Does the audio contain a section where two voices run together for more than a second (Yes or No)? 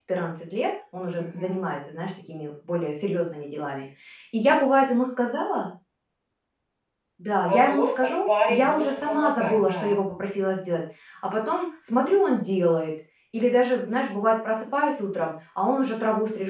Yes